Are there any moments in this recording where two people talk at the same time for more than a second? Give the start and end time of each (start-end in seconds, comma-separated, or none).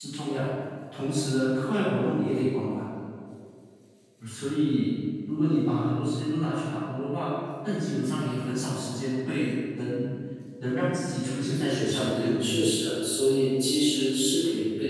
11.2-12.5